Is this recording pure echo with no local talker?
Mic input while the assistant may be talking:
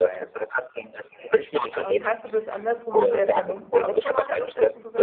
No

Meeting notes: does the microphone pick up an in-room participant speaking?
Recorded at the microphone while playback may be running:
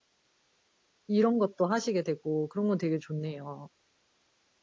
Yes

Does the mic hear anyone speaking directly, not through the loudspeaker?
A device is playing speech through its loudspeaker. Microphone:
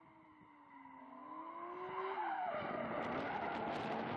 No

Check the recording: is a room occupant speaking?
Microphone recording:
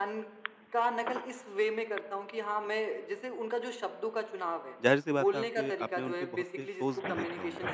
Yes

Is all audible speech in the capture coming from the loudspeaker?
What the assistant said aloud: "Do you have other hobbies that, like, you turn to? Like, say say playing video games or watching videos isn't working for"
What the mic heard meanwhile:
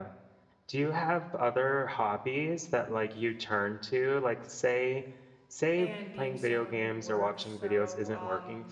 No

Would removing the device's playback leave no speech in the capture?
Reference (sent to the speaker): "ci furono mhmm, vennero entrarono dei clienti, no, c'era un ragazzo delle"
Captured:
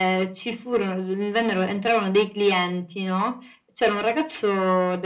Yes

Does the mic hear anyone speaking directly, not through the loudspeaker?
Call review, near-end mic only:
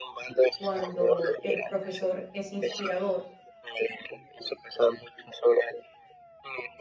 Yes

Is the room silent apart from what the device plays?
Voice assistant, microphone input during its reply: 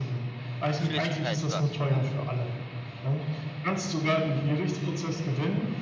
No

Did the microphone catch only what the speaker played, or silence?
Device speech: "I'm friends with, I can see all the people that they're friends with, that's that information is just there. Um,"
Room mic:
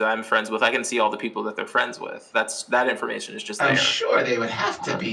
No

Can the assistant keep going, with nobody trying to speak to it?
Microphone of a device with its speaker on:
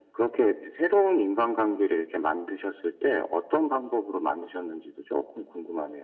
Yes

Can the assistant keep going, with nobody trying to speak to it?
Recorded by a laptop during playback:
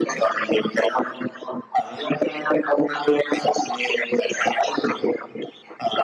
Yes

